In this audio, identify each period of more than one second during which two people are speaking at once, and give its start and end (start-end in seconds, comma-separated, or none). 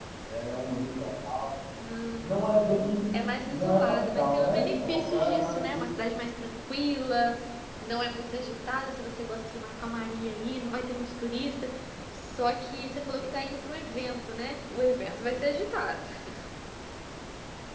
3.5-5.8